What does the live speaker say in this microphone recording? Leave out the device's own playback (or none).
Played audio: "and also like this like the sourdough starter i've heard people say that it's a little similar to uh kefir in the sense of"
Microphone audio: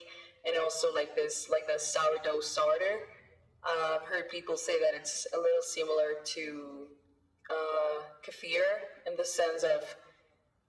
none